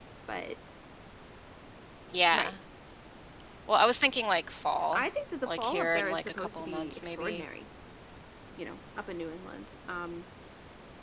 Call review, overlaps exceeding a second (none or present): present